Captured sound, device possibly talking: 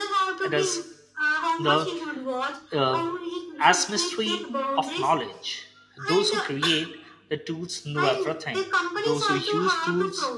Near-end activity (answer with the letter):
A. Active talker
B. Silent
A